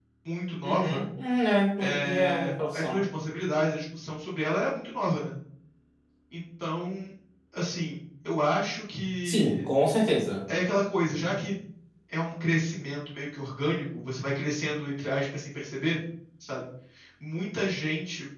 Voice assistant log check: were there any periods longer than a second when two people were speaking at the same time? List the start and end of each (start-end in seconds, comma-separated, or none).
1.8-3.0